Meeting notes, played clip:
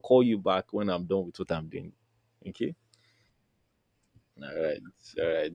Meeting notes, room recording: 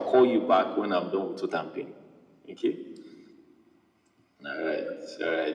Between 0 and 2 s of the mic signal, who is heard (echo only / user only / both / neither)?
echo only